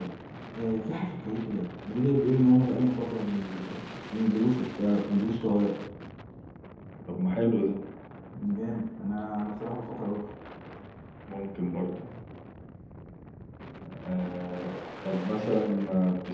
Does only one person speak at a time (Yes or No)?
Yes